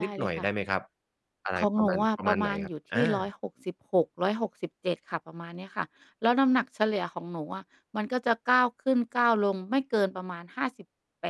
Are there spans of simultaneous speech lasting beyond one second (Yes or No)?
Yes